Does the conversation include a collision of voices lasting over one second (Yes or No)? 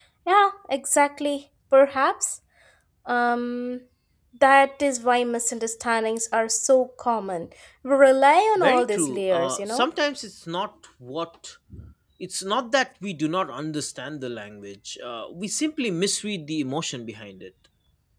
Yes